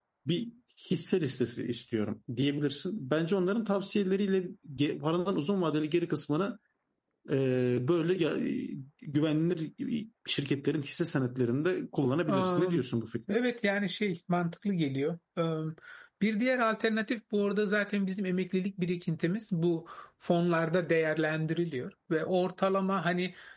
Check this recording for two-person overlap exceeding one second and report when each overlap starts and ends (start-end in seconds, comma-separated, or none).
none